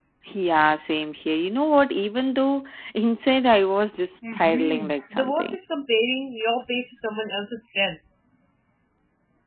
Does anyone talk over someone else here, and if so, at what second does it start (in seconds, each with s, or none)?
4.2 s